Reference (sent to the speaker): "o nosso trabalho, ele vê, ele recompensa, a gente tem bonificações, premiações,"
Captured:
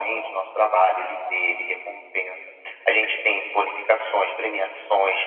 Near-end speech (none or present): none